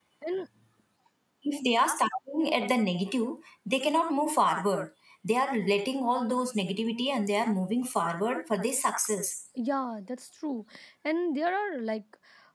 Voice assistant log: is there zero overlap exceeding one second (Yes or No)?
Yes